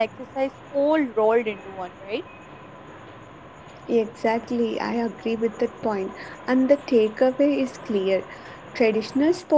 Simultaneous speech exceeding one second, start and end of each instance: none

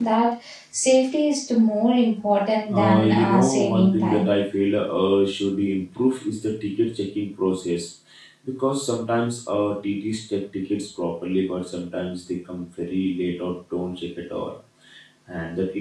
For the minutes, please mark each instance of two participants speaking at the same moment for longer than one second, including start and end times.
2.7-4.3

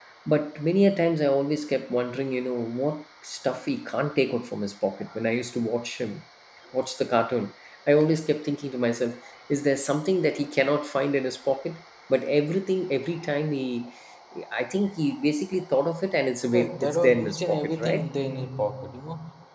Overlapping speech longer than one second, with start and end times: 16.5-18.0

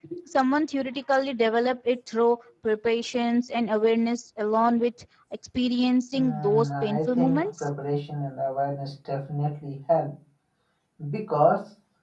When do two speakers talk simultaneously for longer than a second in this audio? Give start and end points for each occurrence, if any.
6.2-7.7

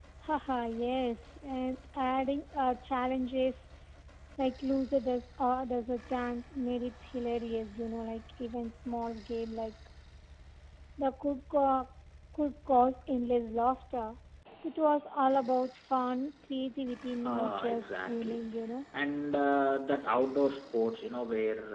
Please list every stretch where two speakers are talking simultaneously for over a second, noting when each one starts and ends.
17.2-18.5

